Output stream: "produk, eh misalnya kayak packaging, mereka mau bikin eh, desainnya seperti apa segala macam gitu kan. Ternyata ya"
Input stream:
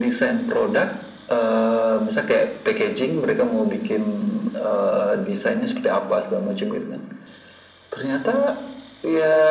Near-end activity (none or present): none